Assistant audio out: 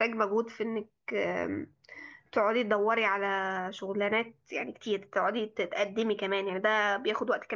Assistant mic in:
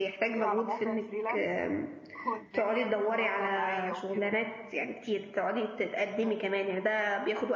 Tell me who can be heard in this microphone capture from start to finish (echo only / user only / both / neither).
both